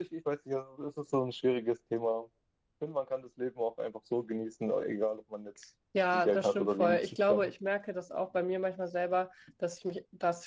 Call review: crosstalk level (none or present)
present